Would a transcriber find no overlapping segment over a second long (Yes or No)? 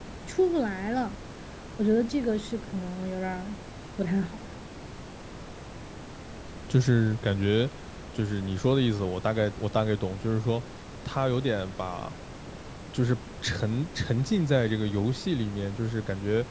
Yes